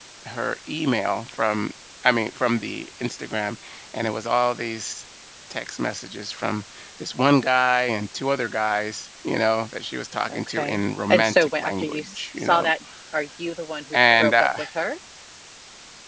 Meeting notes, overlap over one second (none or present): present